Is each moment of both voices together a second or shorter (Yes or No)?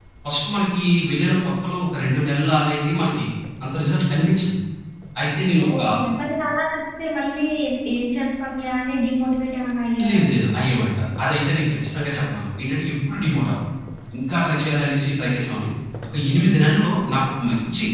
Yes